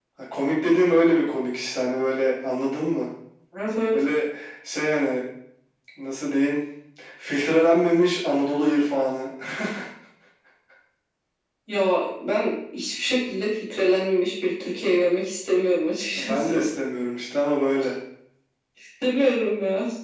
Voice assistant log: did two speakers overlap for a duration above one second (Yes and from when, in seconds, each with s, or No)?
No